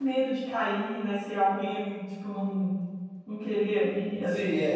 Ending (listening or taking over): taking over